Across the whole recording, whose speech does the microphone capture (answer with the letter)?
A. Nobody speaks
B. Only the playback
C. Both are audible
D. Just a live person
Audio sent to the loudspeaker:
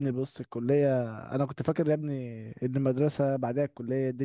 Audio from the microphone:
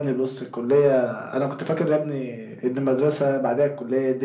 B